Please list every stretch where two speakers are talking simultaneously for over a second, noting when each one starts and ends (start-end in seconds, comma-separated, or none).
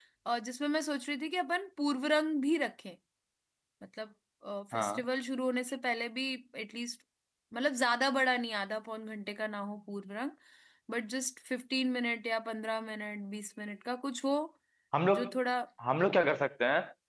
none